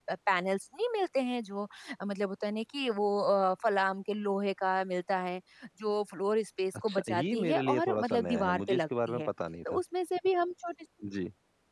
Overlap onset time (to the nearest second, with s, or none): 7 s